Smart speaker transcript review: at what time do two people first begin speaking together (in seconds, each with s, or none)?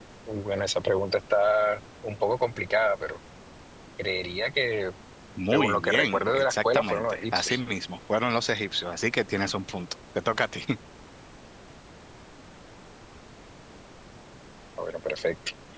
5.5 s